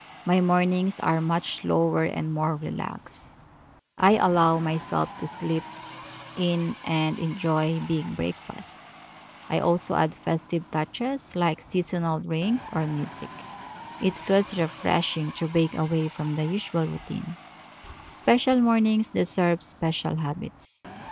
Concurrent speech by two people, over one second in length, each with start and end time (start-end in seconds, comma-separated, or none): none